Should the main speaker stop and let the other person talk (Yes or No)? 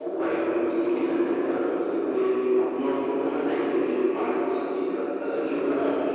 Yes